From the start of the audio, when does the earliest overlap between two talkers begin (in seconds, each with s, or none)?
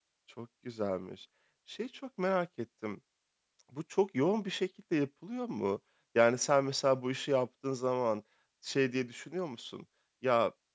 none